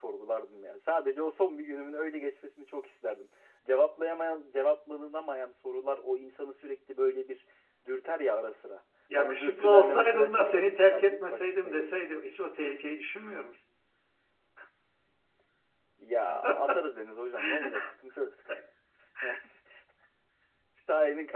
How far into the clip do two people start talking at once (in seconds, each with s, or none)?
9.2 s